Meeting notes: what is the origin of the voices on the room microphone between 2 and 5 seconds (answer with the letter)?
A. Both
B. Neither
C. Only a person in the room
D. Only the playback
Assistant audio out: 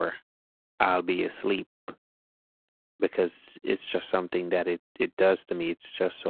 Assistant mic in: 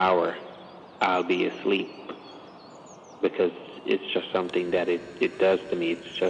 D